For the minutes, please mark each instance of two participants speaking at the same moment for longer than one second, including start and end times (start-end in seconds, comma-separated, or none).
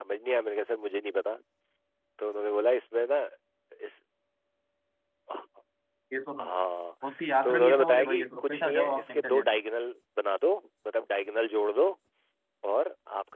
7.4-9.4